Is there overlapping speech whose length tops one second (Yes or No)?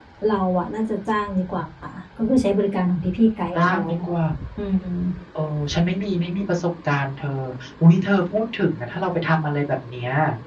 No